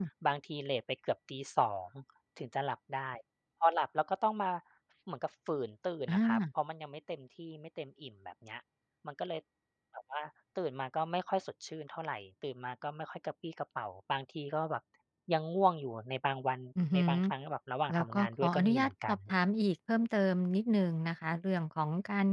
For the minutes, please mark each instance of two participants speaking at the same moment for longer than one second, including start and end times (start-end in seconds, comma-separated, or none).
17.9-19.2